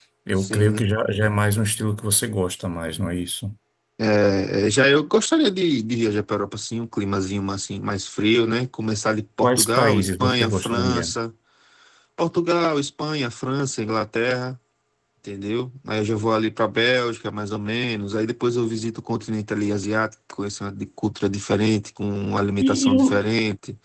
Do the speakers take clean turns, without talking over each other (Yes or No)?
No